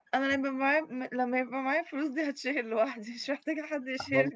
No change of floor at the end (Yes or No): No